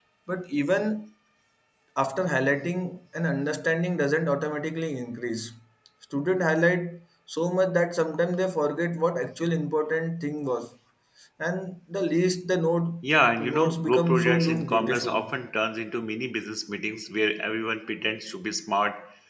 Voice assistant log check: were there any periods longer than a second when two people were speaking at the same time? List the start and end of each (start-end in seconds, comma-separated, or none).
13.4-15.2